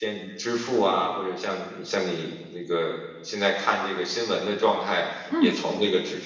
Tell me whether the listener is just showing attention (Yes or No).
Yes